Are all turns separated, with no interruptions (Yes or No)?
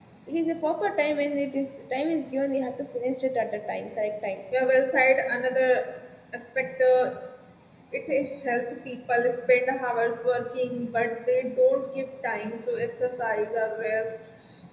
Yes